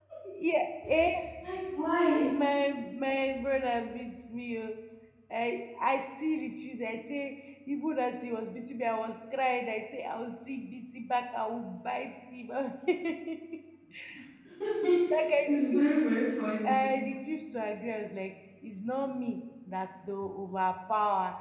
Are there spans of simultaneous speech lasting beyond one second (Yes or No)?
No